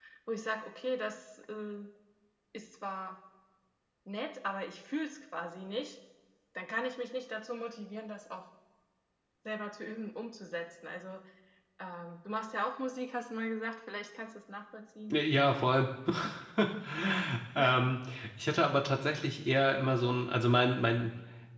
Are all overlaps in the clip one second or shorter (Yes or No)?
Yes